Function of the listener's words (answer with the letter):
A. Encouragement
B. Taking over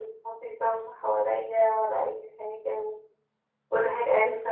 A